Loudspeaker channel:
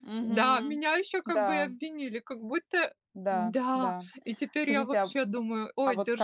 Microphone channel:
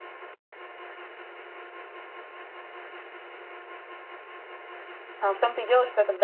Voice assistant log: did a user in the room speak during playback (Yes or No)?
Yes